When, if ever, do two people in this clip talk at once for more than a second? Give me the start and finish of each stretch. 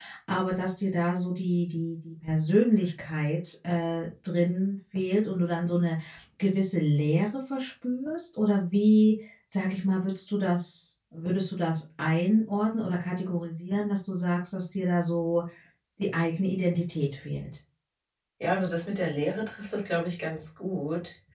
none

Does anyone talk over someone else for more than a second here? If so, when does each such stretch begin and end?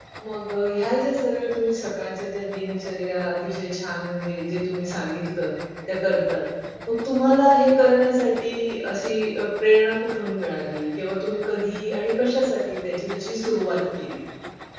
none

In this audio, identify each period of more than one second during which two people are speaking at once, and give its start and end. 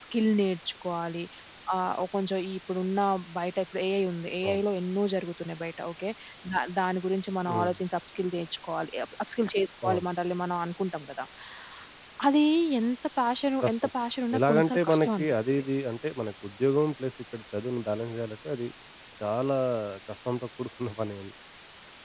14.4-15.6

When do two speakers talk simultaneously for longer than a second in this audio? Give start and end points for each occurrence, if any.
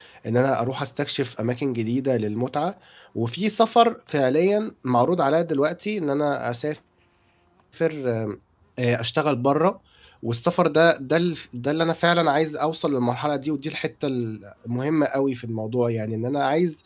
none

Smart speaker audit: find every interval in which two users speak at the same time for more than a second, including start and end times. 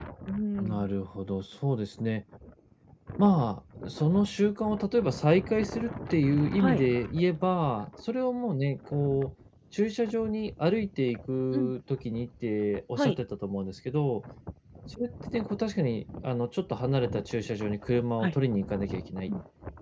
none

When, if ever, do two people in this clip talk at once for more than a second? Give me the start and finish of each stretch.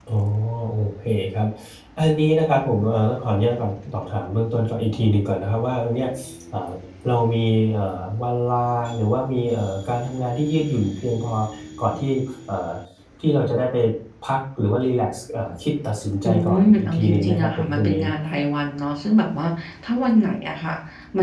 16.3-18.0

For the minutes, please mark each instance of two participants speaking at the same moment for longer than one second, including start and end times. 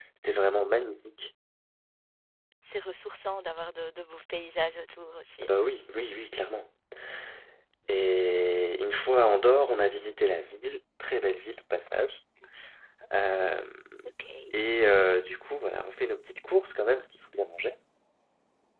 none

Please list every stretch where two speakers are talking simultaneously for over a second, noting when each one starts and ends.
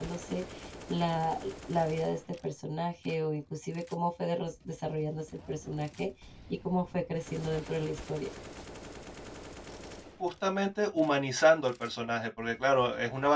none

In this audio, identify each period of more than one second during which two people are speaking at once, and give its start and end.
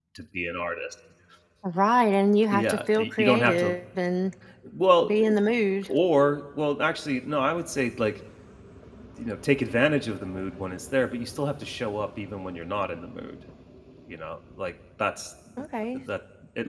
2.5-3.8

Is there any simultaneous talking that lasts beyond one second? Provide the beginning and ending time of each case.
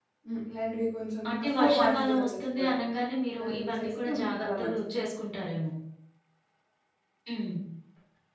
1.3-2.8, 3.4-4.8

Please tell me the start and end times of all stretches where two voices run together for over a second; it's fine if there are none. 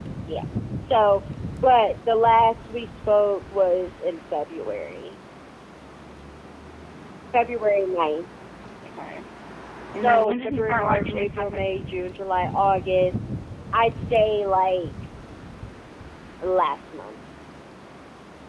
10.0-11.8

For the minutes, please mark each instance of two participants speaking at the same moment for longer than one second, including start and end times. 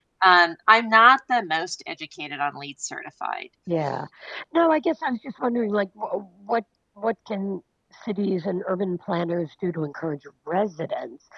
none

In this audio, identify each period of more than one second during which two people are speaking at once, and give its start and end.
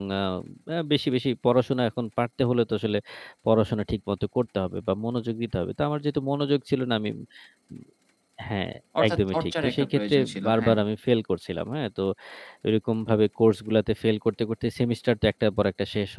9.1-10.8

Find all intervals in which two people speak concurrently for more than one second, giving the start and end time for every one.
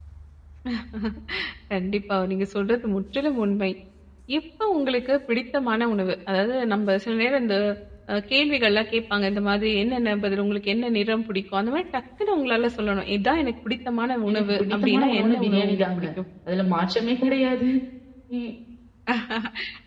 14.3-16.0

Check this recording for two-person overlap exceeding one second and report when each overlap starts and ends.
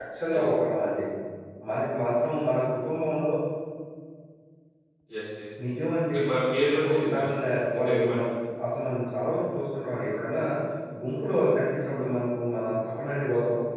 6.7-8.2

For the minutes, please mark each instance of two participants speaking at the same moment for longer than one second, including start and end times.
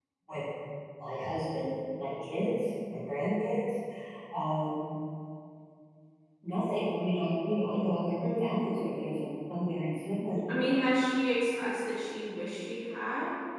none

